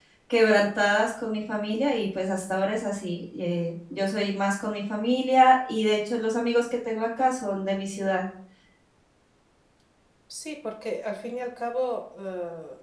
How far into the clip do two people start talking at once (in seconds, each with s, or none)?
none